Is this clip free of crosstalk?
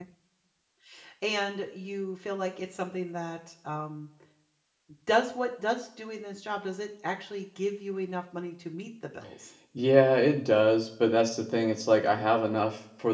Yes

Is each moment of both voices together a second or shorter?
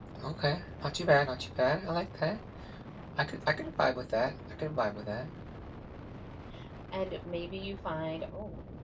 Yes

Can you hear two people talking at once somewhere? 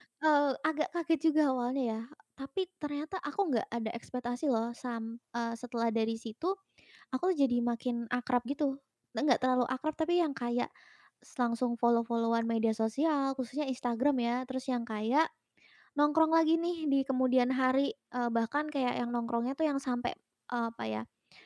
No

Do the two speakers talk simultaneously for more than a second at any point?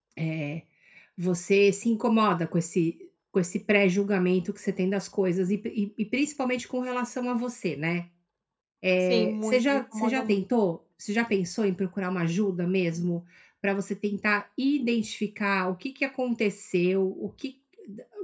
Yes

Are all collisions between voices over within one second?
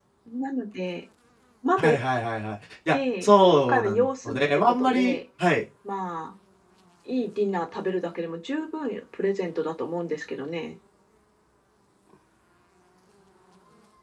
No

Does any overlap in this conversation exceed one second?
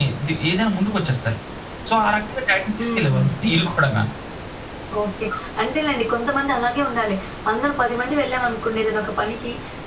No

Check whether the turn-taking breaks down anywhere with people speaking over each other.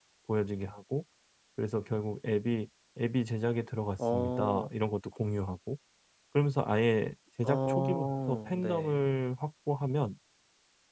Yes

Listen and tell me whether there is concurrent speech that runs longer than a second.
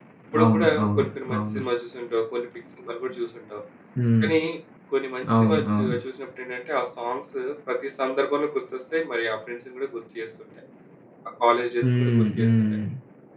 Yes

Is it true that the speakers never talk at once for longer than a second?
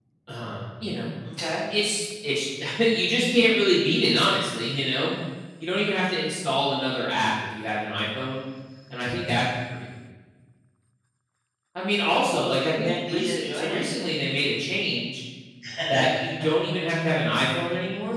No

